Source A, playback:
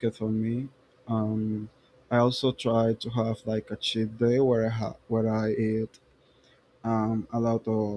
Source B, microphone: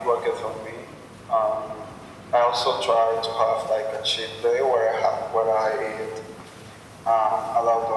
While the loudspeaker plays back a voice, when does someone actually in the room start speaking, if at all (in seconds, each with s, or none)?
none